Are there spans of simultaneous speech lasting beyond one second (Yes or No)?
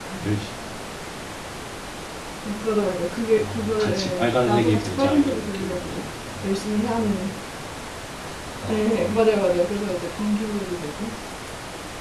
Yes